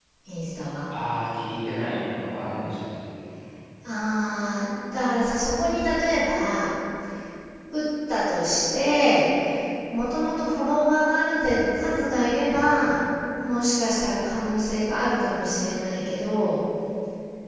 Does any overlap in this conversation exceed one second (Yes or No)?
No